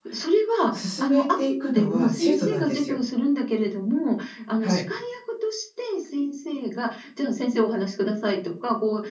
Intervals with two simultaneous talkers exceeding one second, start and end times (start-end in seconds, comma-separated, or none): 0.7-3.0